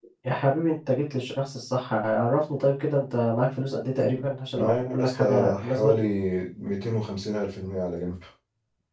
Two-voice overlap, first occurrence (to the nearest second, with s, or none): 5 s